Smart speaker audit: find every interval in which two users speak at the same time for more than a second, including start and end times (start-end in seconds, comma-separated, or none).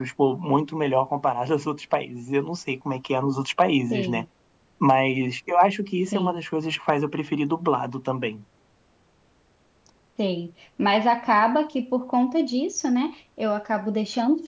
none